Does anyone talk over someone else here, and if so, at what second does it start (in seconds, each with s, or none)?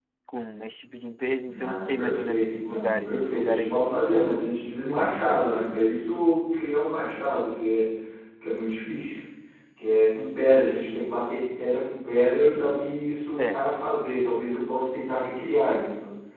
1.5 s